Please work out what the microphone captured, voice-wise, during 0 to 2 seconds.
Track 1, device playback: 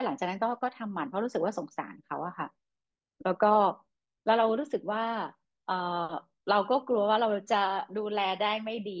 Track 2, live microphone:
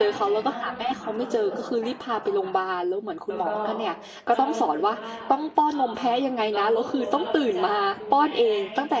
both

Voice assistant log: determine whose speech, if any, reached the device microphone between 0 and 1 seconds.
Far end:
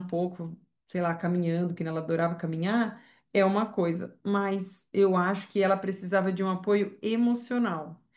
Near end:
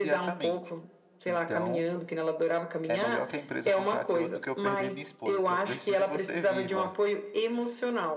both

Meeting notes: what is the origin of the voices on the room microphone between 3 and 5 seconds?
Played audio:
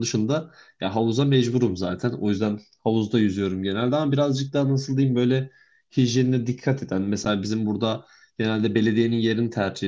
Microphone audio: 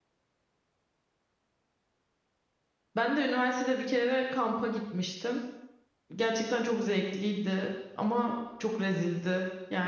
user only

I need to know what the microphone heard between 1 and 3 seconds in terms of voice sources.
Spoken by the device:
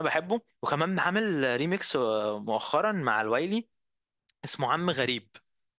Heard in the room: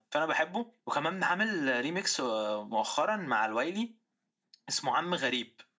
echo only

